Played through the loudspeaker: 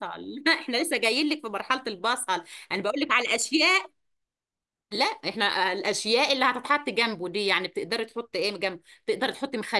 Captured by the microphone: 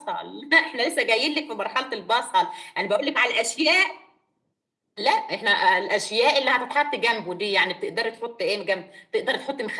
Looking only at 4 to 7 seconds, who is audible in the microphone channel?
echo only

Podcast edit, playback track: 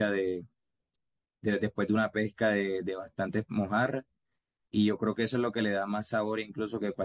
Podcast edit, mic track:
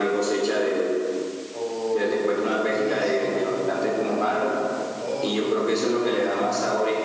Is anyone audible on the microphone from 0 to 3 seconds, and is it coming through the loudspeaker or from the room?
both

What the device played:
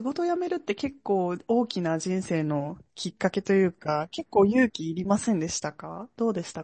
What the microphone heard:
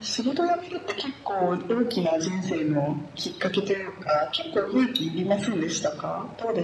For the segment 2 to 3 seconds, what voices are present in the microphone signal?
echo only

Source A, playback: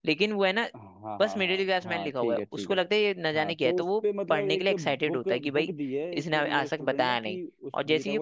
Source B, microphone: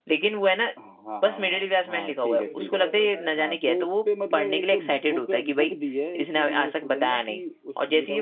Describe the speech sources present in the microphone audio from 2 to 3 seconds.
both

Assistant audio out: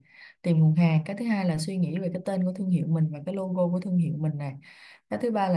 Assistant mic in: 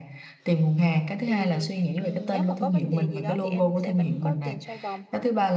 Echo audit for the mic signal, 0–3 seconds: both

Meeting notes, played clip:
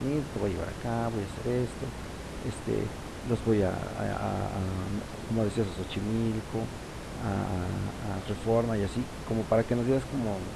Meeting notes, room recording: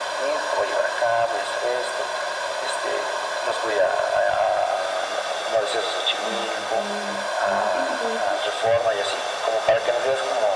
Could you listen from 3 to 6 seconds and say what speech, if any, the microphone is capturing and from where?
echo only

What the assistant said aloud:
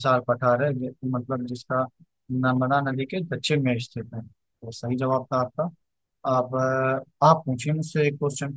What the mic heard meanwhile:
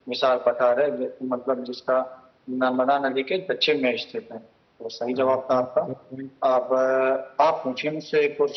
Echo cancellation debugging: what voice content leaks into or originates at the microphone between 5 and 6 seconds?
both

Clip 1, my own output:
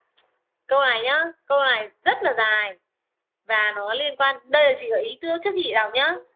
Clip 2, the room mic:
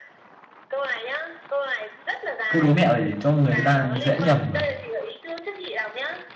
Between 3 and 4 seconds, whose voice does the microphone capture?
both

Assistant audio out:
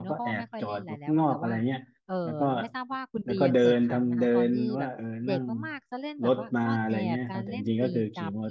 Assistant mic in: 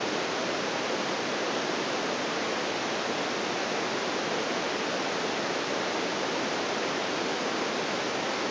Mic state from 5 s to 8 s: neither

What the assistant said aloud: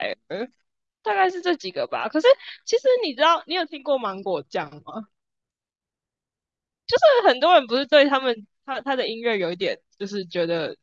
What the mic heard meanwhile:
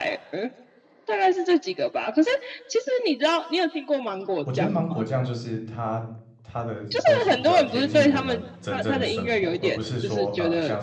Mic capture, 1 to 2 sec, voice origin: echo only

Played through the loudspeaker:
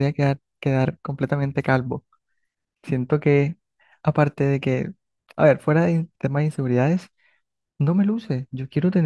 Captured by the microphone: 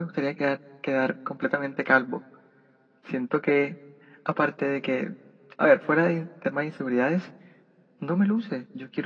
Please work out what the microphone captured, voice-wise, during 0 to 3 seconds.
echo only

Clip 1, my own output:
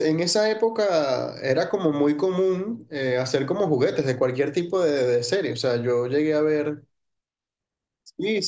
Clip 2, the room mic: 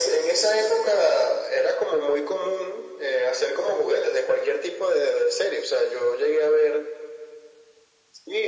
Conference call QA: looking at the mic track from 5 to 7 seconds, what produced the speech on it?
echo only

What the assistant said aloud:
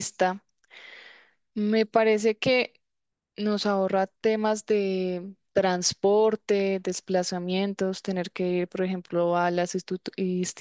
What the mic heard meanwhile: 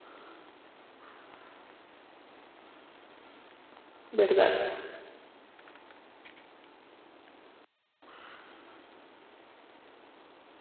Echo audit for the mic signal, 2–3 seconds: neither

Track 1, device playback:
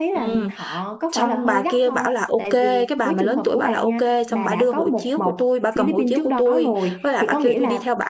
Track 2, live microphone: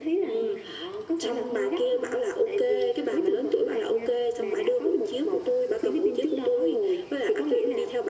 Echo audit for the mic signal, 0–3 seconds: echo only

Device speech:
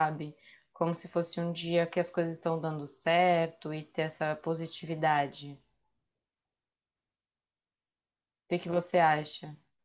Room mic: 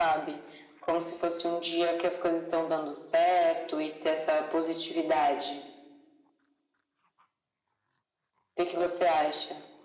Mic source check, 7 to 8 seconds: neither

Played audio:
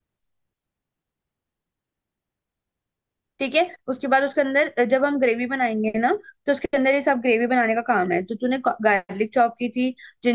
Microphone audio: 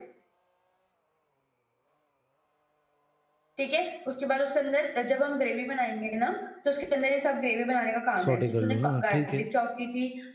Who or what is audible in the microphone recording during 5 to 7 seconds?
echo only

